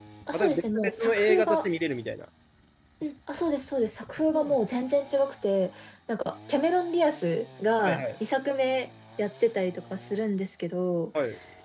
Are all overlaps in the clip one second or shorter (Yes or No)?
No